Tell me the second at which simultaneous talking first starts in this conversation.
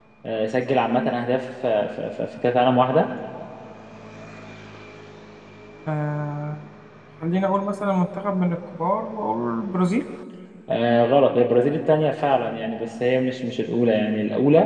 none

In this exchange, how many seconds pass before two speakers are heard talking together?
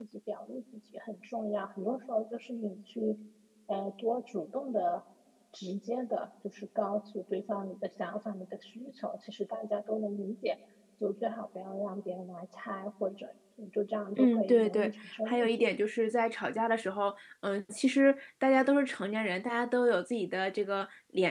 14.2 s

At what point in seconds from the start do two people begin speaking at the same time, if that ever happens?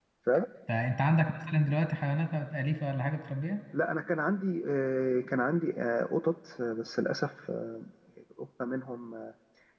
none

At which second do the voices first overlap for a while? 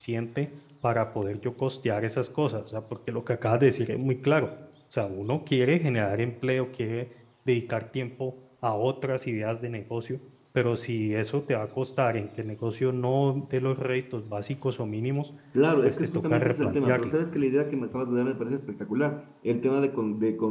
15.8 s

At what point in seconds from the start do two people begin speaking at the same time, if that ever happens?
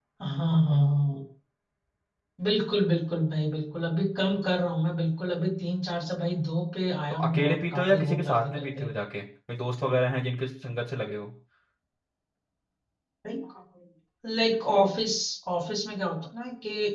7.1 s

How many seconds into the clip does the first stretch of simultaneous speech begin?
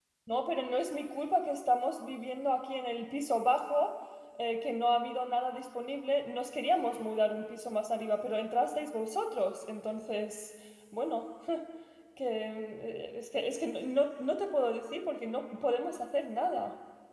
none

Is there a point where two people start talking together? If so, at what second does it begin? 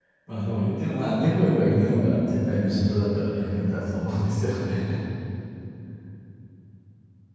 none

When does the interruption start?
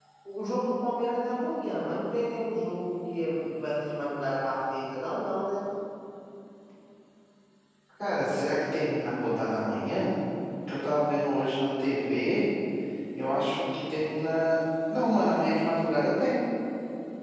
none

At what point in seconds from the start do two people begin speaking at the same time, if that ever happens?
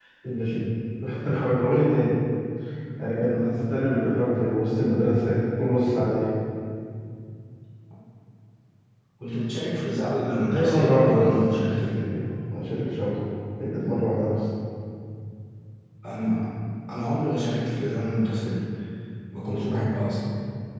10.5 s

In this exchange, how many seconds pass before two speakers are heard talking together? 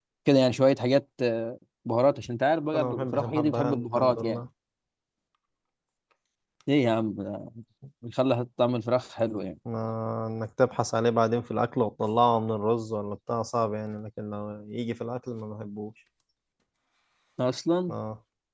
2.7 s

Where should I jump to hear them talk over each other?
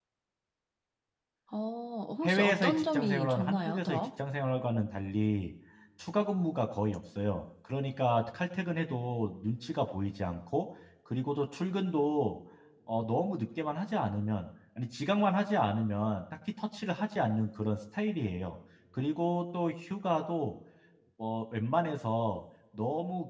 2.2 s

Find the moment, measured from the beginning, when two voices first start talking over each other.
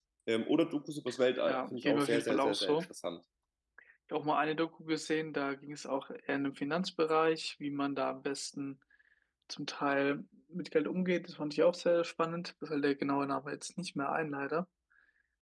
1.5 s

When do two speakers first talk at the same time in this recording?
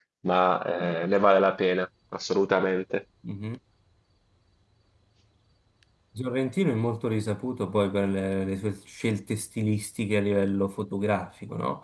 none

